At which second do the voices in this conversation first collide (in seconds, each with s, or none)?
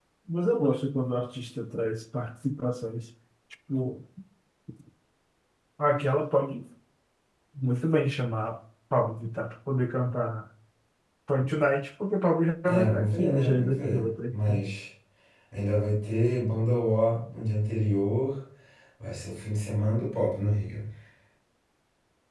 12.7 s